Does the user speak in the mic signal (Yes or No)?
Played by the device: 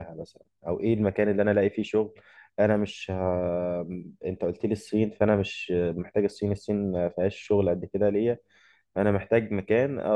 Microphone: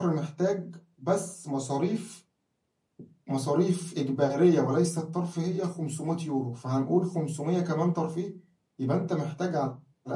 Yes